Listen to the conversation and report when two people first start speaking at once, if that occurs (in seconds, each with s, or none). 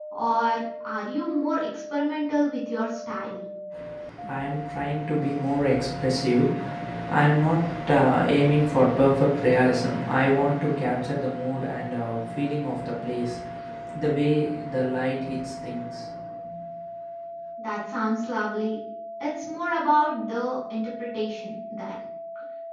none